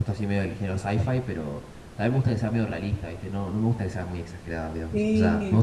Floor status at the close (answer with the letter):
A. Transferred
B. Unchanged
B